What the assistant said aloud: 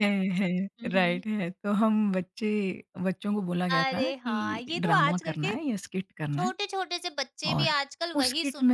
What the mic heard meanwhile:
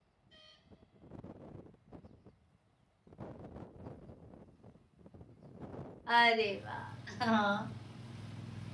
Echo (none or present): none